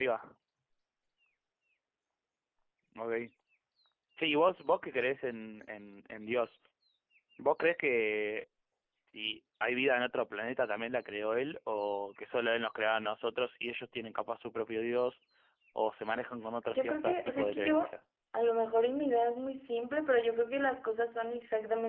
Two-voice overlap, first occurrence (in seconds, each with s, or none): 16.7 s